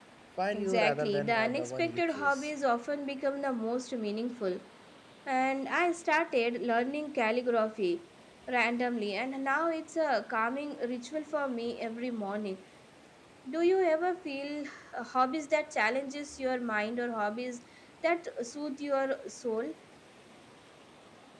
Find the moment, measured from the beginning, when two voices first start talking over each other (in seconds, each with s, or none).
0.5 s